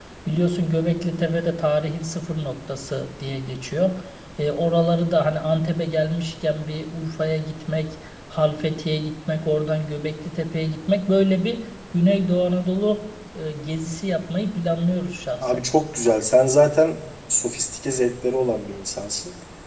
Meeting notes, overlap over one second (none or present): none